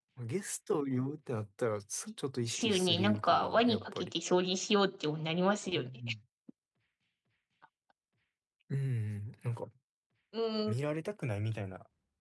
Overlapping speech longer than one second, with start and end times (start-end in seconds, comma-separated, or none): 2.4-4.1